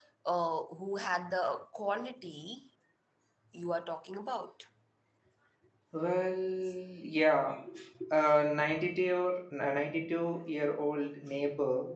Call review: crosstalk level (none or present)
none